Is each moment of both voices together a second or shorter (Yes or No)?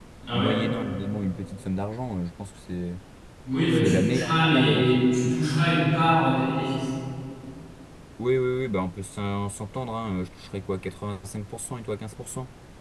No